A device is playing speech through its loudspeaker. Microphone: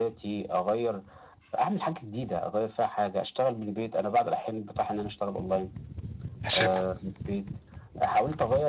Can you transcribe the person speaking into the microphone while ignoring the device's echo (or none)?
نسيبها،